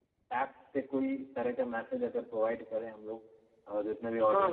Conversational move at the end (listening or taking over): taking over